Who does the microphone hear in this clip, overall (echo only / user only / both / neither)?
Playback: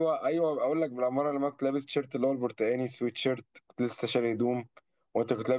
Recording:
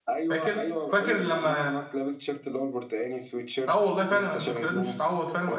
both